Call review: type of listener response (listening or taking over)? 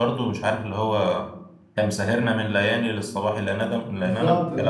taking over